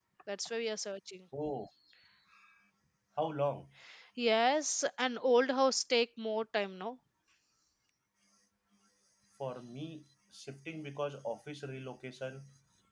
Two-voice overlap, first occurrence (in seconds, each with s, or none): none